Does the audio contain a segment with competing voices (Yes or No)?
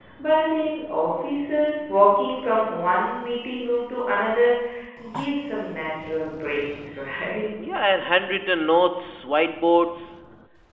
No